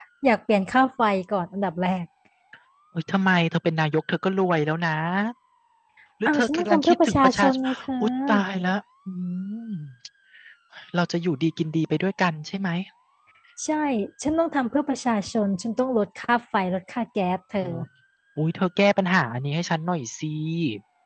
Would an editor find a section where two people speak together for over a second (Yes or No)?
Yes